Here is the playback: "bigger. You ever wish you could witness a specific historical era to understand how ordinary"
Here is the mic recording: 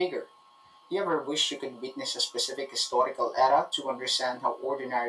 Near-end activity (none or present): none